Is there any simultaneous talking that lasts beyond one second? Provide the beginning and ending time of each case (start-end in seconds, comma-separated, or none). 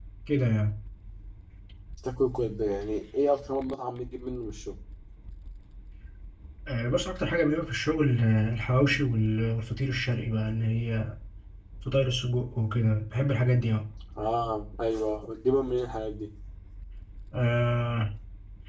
none